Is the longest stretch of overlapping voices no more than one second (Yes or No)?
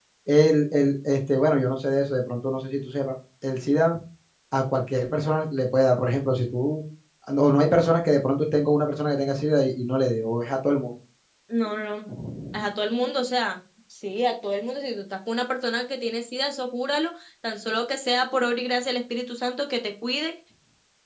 Yes